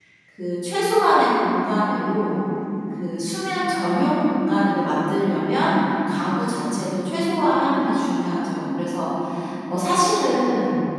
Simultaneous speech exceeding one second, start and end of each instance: none

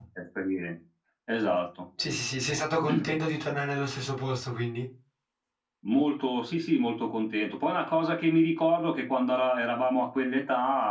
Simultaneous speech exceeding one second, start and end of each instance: none

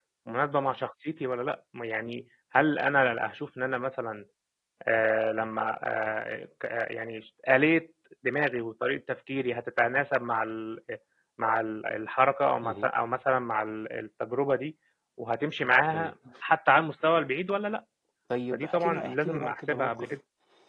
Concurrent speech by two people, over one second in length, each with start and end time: 18.5-20.1

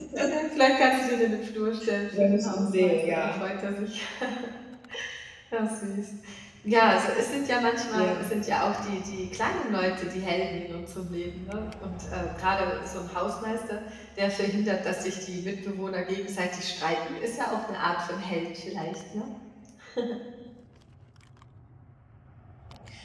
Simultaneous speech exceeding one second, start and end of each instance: 2.2-3.4

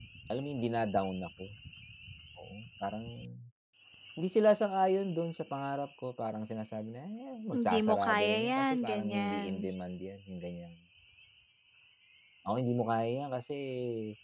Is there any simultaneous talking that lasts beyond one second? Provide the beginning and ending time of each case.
7.5-9.7

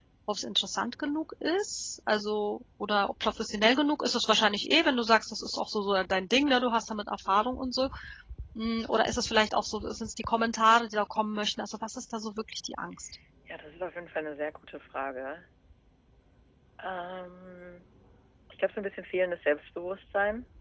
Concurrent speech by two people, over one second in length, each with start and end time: none

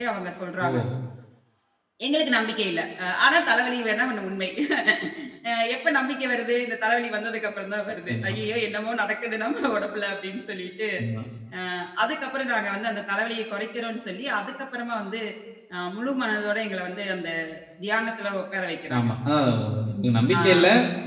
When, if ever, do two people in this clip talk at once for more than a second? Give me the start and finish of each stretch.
none

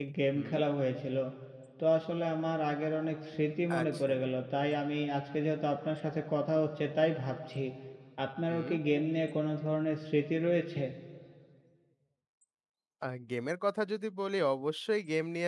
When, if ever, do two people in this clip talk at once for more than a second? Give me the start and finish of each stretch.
none

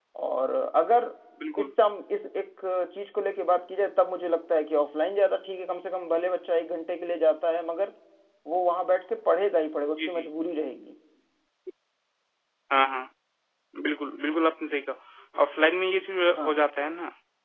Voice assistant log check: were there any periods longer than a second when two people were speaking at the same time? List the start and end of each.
none

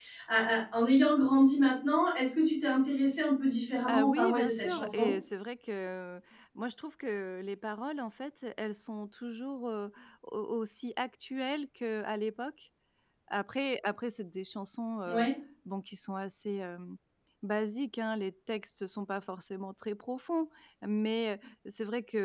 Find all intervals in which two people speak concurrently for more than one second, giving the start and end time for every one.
3.9-5.1

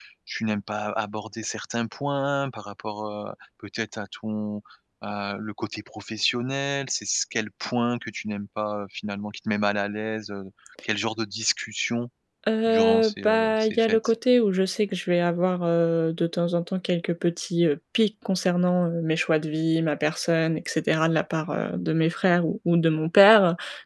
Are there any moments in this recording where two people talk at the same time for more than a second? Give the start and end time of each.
12.7-14.1

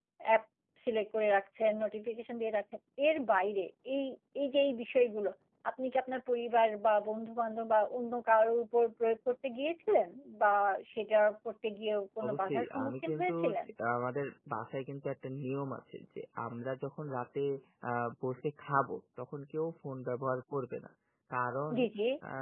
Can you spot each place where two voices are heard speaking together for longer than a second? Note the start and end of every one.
12.2-13.5

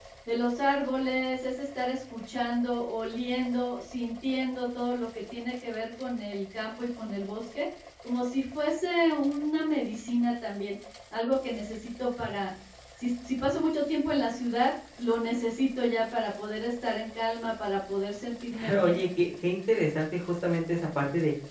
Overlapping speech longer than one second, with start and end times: none

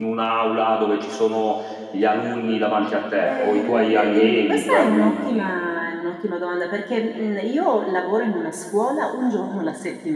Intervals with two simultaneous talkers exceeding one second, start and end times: 3.2-5.5

